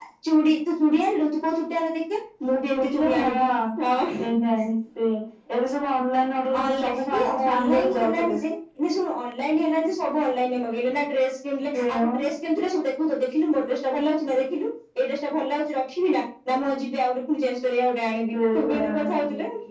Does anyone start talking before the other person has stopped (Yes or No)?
Yes